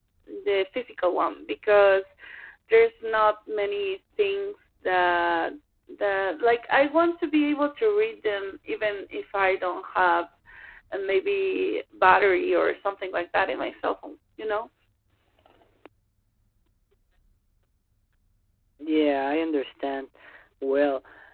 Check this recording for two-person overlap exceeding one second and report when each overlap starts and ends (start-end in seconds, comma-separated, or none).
none